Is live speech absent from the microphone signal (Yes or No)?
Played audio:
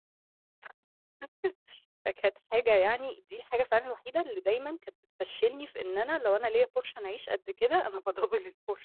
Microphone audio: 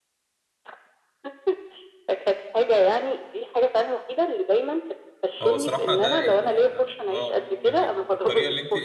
No